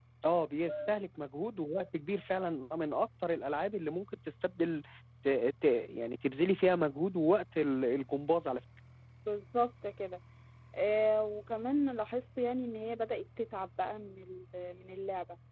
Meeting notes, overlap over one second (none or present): none